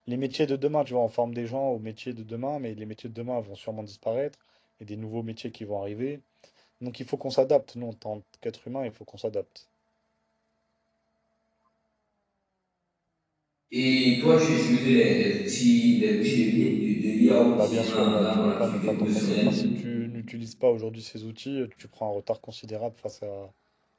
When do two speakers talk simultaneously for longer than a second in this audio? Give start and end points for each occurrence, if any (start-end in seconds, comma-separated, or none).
17.5-19.5